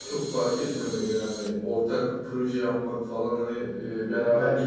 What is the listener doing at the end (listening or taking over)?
listening